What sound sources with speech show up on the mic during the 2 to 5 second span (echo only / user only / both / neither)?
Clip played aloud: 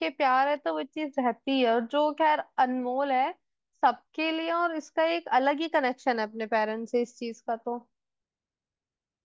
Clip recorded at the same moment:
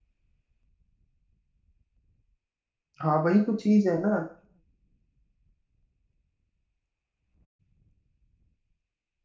user only